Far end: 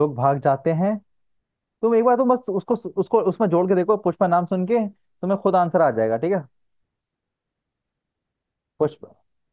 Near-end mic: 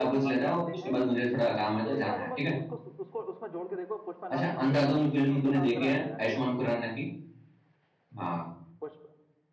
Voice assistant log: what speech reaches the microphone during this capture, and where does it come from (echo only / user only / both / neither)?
both